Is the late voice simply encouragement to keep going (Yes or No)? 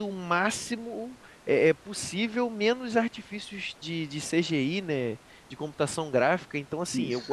Yes